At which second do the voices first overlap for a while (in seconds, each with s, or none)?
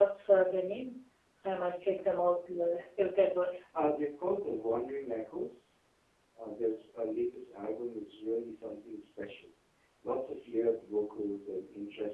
none